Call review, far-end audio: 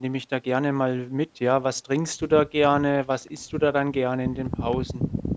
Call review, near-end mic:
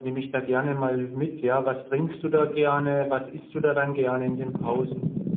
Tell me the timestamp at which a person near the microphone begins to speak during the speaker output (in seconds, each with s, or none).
none